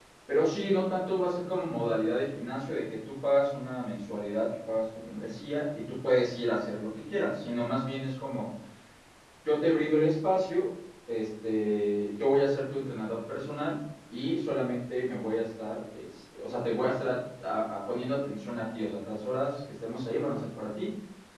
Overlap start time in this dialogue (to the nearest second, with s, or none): none